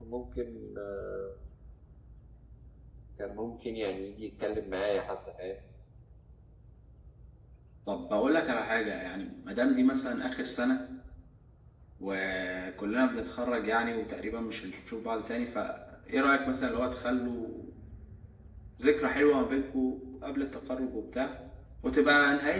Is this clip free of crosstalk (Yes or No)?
Yes